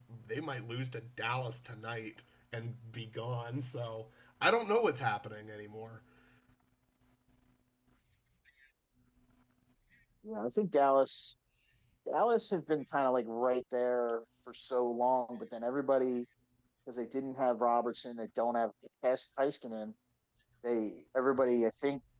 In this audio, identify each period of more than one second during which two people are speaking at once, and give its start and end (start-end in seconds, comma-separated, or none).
none